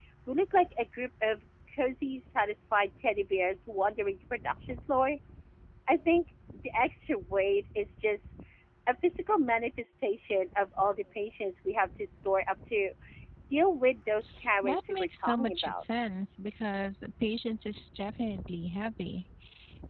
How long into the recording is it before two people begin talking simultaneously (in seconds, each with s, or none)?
14.6 s